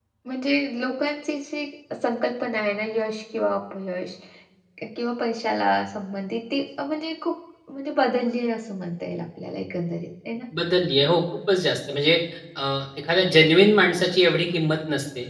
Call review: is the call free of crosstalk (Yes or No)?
Yes